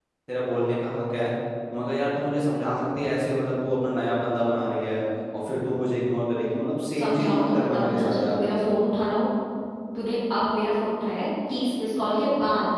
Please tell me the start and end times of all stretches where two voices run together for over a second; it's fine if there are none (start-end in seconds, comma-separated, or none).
7.0-8.4